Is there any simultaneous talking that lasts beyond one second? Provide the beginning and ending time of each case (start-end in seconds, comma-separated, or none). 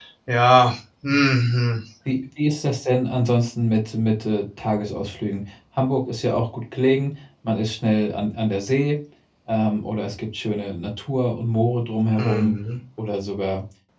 none